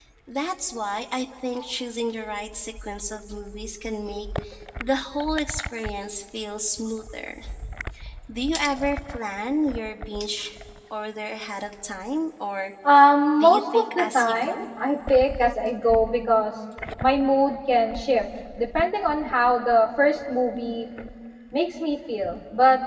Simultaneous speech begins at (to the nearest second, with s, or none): 13 s